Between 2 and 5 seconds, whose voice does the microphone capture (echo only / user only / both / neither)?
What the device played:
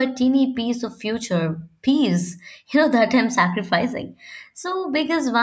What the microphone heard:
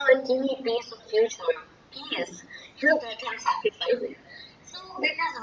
echo only